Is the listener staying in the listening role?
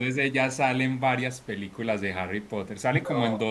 Yes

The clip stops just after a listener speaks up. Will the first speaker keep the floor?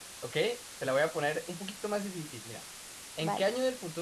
Yes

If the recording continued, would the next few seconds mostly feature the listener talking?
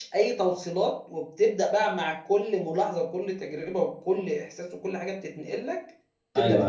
Yes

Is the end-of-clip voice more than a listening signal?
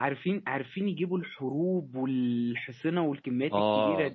Yes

